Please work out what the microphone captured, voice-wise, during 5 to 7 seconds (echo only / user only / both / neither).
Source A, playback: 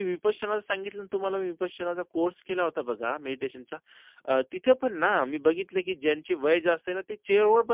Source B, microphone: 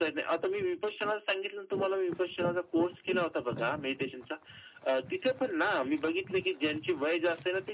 echo only